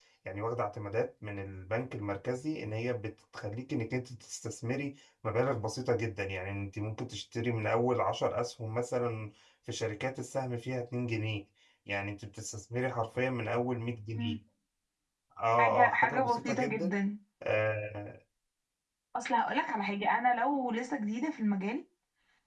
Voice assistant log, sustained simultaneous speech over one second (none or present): present